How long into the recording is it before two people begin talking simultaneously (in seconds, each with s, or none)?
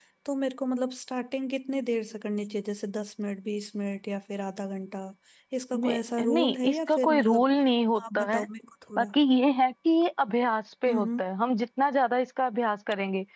5.7 s